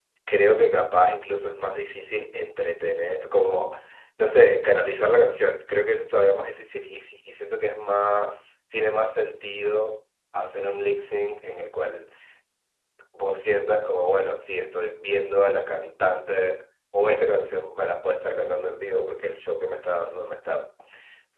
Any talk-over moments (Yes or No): No